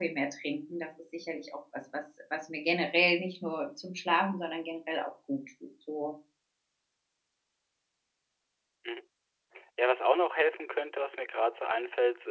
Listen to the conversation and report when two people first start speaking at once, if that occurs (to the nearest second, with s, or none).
none